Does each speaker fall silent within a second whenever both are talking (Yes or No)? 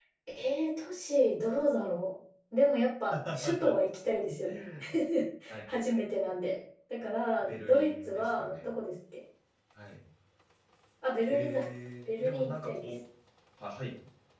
No